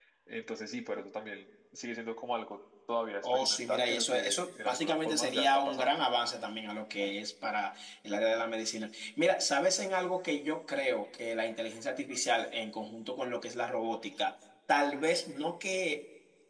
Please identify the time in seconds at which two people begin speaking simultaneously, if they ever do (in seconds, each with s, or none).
3.2 s